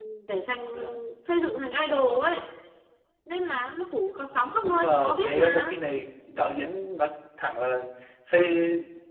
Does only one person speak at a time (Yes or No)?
No